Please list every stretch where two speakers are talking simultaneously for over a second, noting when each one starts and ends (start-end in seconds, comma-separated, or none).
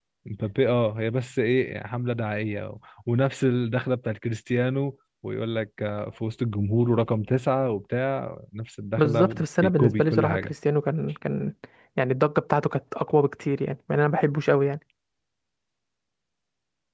9.0-10.5